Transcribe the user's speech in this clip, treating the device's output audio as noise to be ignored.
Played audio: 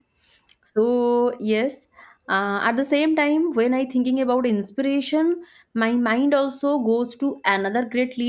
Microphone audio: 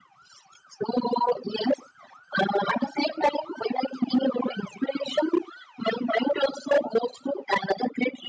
none

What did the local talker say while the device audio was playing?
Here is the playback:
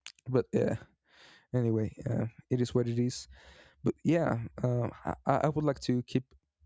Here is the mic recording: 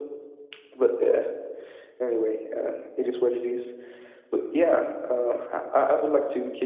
none

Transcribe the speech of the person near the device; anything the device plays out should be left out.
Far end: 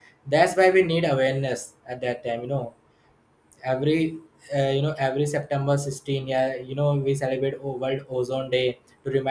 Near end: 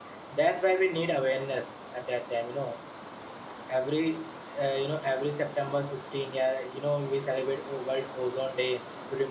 none

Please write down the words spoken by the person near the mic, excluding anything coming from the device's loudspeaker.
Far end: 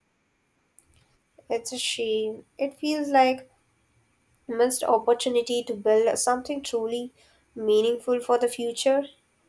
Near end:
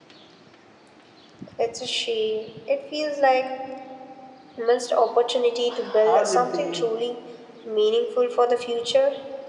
How did they

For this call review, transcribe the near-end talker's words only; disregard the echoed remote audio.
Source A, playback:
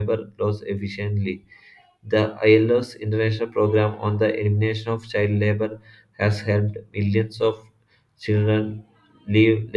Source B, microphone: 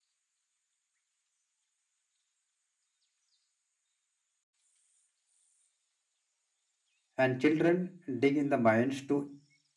and children dig in the mines to

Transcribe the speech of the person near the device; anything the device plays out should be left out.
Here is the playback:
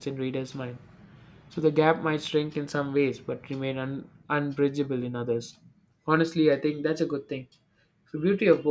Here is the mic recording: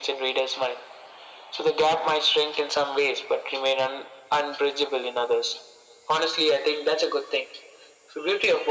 none

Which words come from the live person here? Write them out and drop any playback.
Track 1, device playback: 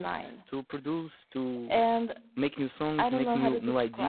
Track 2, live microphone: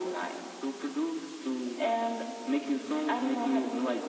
none

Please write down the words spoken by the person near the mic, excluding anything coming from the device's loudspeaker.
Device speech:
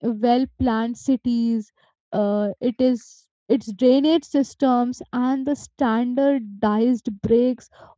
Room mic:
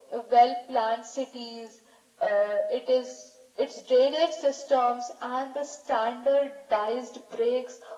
none

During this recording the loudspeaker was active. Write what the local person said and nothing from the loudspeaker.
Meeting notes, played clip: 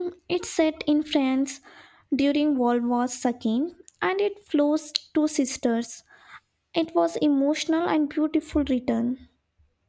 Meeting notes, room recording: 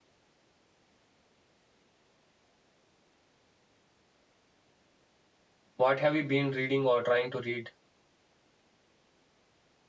What have you been reading or trying to read?

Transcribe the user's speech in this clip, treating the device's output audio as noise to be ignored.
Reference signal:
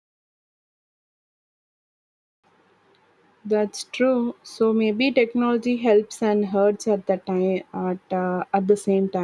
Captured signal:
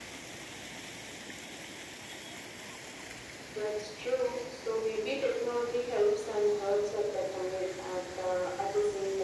none

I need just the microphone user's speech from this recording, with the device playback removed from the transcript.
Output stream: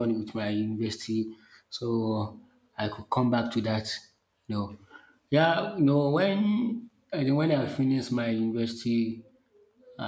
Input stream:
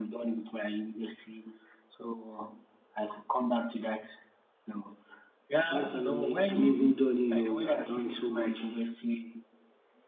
that's an amaz- amazing journey. You know, you have done so much,

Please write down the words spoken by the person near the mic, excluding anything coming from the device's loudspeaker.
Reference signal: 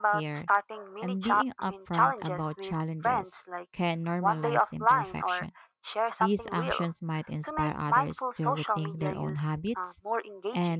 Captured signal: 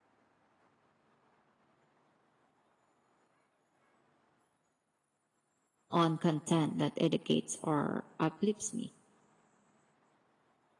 on content that educates or uplifts me.

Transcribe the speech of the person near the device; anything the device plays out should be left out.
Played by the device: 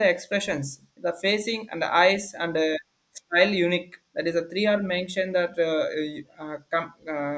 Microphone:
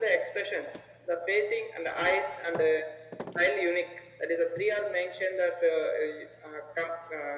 none

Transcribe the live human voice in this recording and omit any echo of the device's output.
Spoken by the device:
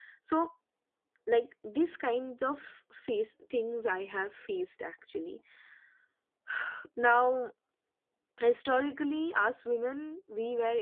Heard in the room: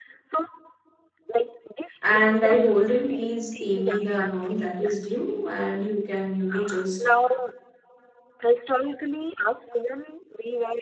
and i told him please pay me the amount that is due and you can you know just

